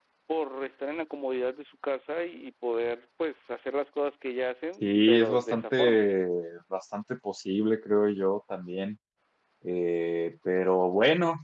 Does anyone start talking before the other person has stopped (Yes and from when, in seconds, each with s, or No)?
Yes, from 4.8 s